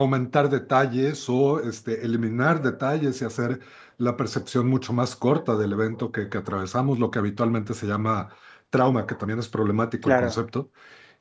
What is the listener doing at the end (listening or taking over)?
listening